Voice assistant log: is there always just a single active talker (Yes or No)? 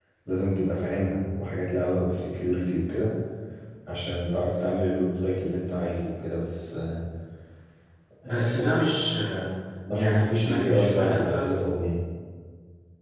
No